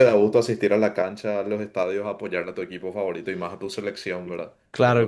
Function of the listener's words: taking over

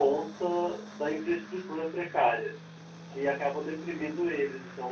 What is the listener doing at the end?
listening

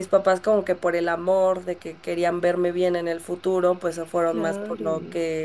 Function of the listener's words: listening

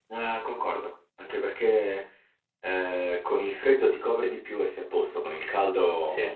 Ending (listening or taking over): listening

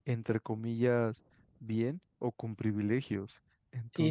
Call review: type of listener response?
taking over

